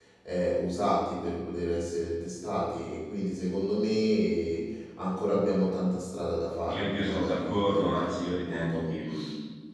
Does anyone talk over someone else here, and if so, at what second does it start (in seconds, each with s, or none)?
6.7 s